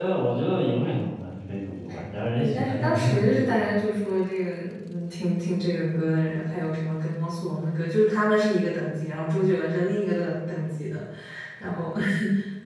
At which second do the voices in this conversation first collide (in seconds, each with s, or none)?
2.3 s